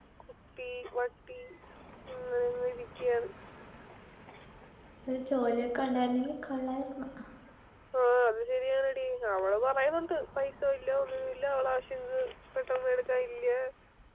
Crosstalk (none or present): none